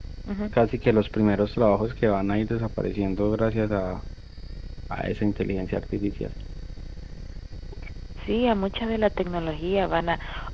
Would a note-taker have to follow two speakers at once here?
No

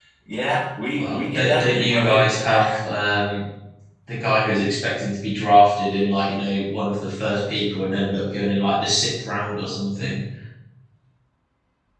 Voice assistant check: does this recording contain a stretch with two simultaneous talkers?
Yes, from 0.9 s

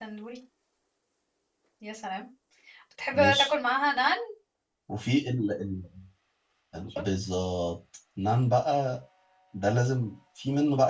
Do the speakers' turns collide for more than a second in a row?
No

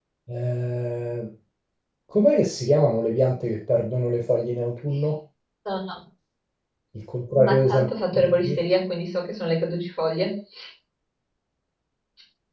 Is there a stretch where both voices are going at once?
Yes, from 7.3 s

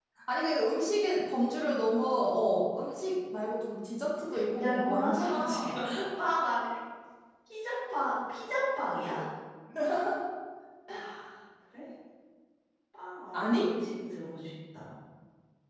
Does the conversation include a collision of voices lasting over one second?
Yes, from 4.3 s

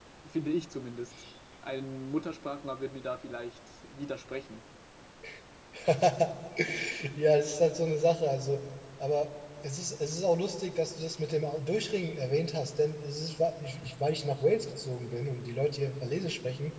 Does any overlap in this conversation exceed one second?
No

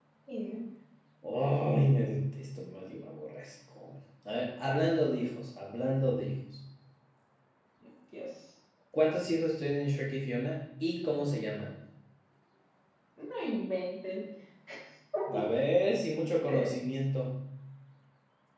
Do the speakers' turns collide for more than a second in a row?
No

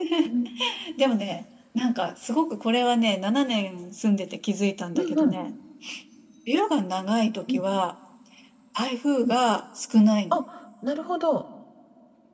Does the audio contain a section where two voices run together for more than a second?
No

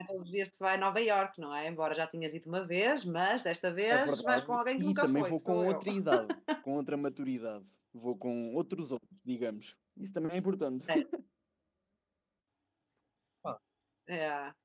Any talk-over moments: Yes, from 3.9 s

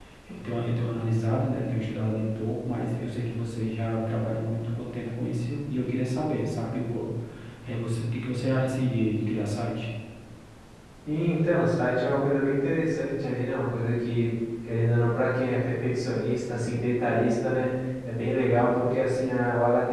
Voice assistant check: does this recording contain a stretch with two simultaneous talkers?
No

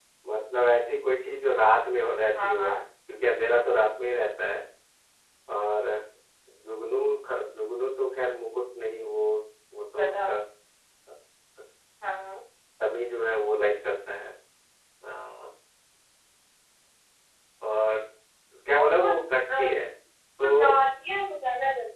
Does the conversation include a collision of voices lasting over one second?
No

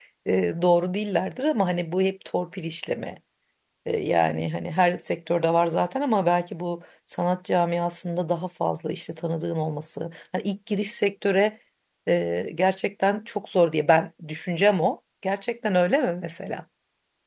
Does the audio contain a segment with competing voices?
No

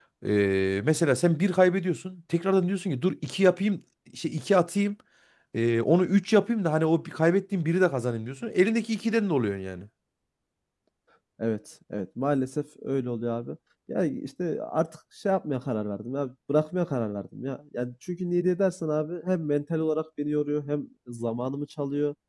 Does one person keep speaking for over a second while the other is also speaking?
No

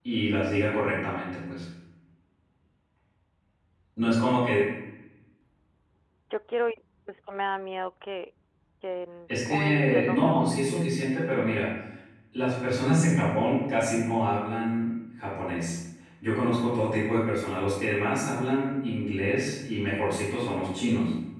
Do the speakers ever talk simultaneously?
Yes, from 9.3 s

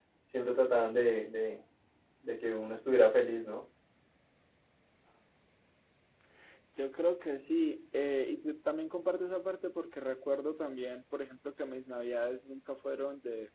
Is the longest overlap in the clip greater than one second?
No

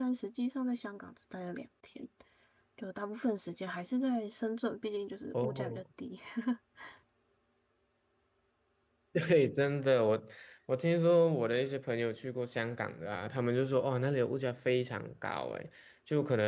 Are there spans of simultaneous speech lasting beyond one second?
No

